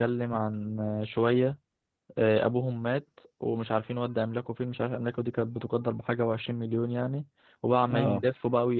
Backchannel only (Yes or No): Yes